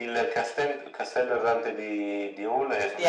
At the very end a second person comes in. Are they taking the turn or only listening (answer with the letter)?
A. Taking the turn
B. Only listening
B